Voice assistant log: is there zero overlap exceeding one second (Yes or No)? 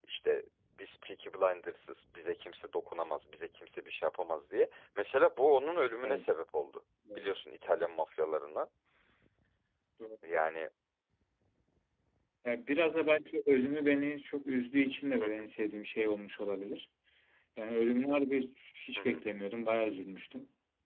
Yes